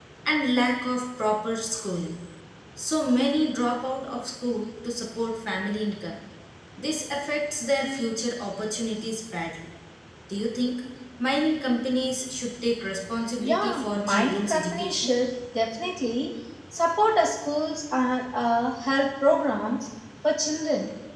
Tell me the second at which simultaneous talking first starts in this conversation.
13.4 s

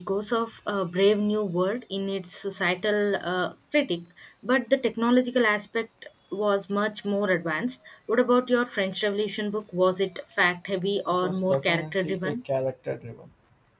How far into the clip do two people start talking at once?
11.1 s

